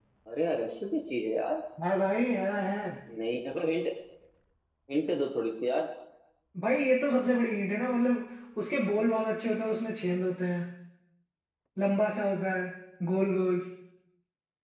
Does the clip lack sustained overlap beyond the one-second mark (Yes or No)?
Yes